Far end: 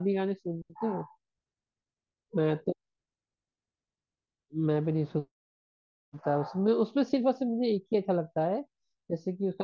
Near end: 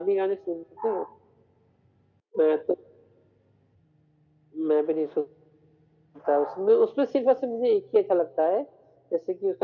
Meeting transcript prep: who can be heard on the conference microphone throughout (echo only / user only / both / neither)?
echo only